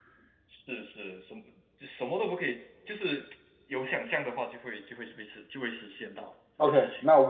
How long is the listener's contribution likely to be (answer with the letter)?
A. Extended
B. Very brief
A